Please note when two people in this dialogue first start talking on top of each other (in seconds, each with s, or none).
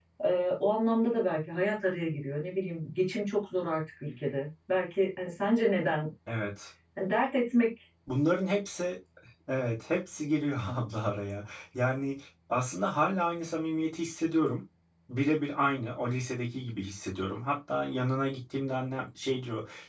none